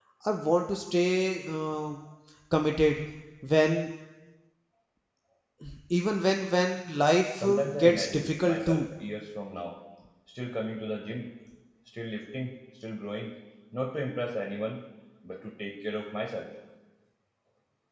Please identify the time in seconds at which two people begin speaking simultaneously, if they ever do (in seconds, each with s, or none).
7.4 s